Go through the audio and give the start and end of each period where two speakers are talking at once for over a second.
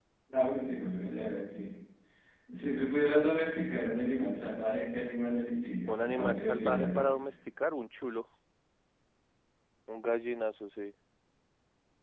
5.9-7.3

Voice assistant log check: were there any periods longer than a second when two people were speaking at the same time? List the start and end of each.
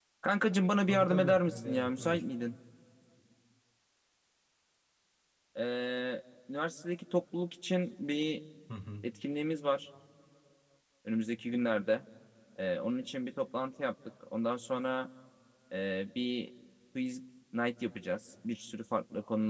0.9-2.2

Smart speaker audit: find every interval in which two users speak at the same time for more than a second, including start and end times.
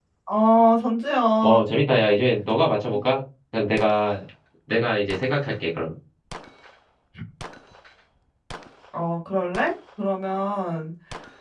none

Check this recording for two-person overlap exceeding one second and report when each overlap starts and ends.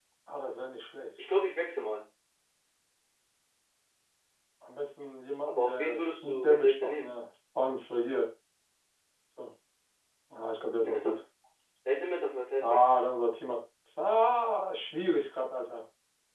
5.4-7.1

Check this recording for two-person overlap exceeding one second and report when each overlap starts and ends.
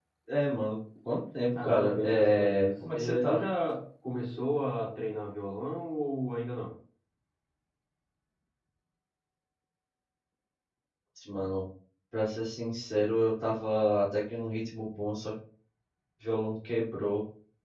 1.6-3.4

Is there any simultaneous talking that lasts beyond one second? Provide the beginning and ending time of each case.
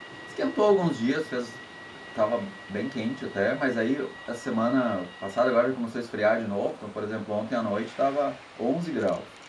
none

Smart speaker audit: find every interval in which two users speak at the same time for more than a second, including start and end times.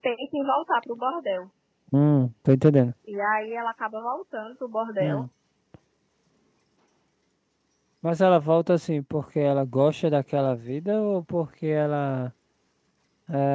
none

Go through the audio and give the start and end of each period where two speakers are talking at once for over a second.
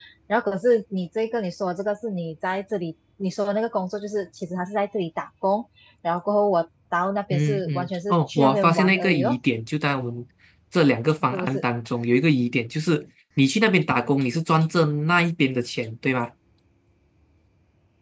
7.3-9.4

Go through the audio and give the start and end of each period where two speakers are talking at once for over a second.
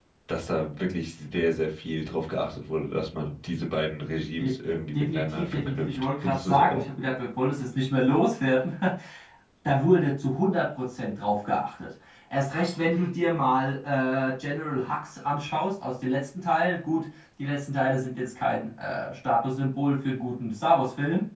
4.9-6.9

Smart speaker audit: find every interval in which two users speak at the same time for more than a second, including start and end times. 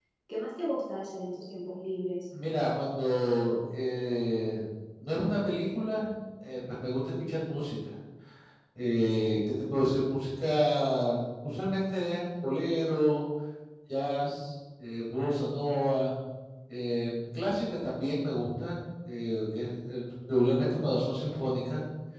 none

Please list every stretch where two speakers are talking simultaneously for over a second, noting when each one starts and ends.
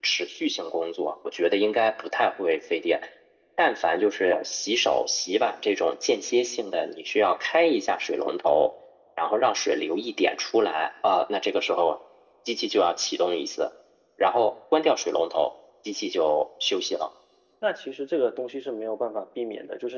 none

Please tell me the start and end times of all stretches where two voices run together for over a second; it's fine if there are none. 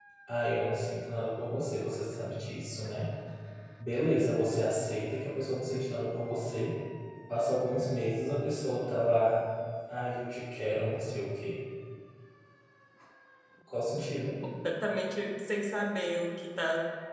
none

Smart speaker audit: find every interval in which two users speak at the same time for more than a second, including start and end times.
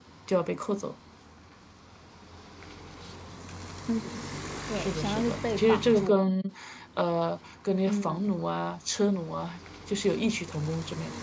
4.8-6.4

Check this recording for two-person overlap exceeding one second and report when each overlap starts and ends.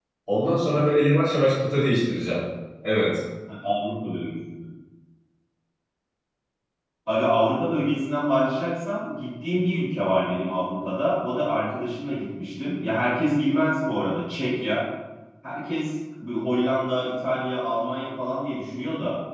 none

